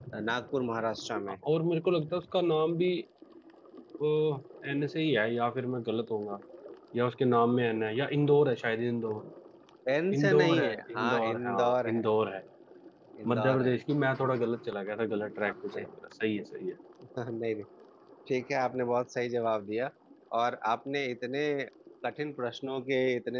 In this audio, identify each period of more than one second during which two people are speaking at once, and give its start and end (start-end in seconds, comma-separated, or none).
10.1-12.0